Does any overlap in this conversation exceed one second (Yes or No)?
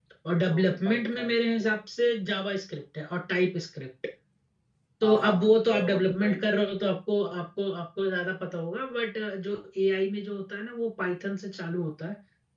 Yes